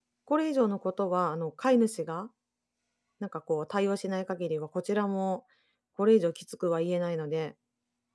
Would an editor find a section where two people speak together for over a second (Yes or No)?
No